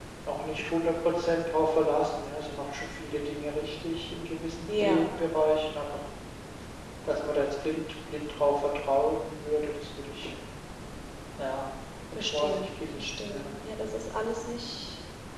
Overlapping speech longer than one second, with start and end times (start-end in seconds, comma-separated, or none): 12.2-13.5